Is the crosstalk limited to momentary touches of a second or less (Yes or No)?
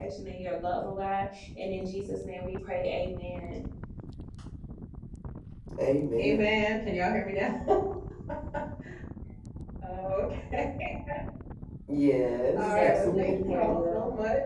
No